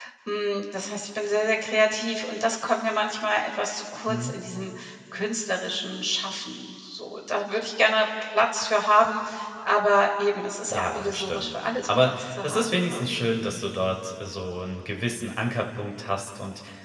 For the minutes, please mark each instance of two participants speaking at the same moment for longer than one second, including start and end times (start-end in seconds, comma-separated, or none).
10.7-13.2